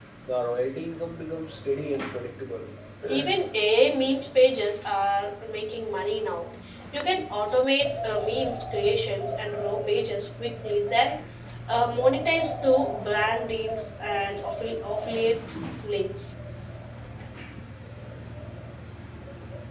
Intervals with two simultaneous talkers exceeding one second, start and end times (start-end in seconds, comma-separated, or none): none